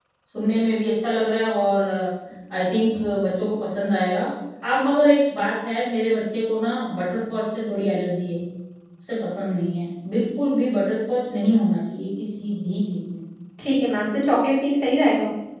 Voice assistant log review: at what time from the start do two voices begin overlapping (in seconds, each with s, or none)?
none